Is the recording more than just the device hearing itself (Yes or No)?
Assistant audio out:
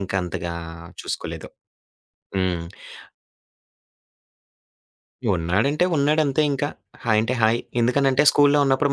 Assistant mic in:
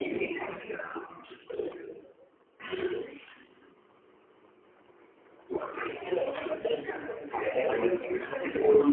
No